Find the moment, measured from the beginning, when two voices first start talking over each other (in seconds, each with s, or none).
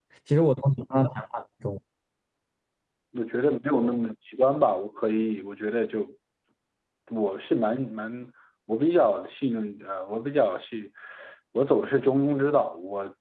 none